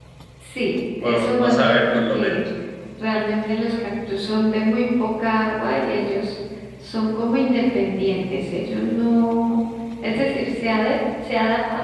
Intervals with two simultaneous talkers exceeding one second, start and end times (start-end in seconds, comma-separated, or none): 1.0-2.4